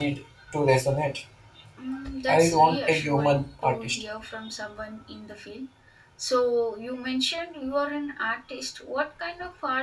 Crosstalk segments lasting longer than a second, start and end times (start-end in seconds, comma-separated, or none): 2.3-4.0